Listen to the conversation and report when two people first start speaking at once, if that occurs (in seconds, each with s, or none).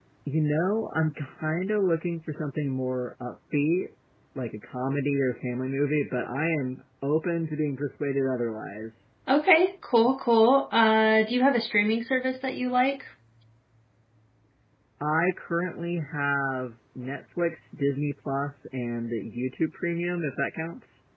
none